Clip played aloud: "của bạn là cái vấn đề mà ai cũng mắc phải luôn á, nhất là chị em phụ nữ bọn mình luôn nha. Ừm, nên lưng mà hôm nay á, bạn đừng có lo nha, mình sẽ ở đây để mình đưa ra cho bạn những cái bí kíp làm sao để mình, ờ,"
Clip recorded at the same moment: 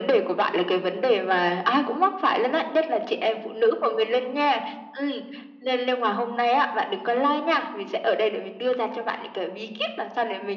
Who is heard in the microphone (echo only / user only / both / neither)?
echo only